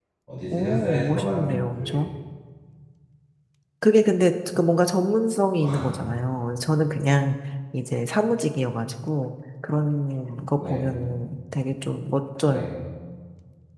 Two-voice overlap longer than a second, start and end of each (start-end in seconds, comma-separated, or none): 0.5-1.8